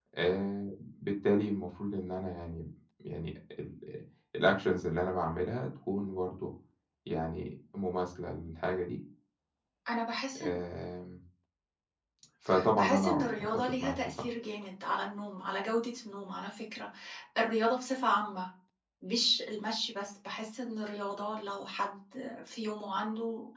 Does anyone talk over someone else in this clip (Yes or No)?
Yes